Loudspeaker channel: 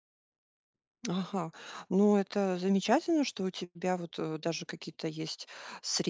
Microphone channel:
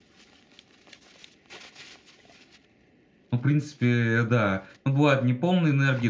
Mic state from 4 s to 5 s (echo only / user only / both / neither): user only